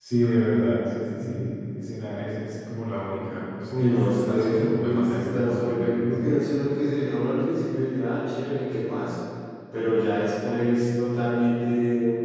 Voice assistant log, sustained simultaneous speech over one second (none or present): present